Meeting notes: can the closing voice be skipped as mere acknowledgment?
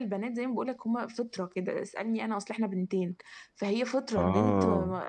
Yes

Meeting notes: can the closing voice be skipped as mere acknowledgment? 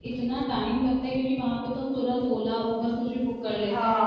No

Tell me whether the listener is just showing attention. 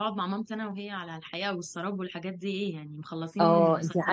No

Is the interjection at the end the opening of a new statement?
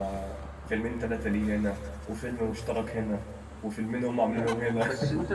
Yes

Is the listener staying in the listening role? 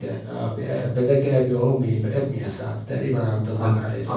No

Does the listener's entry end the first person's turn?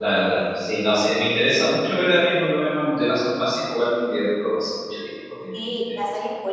Yes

